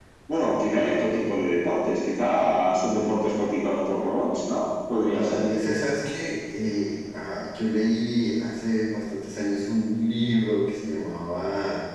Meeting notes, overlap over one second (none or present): none